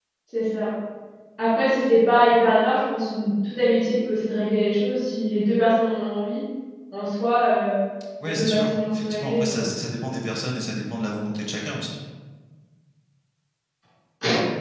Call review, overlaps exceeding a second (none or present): present